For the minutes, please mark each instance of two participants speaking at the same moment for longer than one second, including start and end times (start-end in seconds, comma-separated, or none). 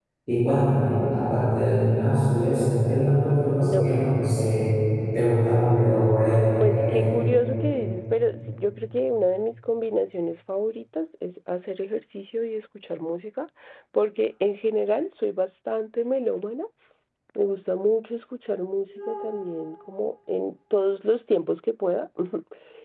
5.9-7.2